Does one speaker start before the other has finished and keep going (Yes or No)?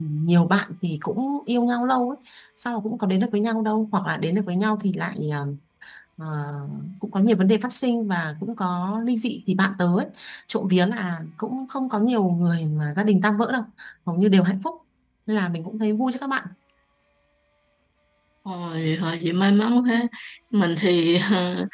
No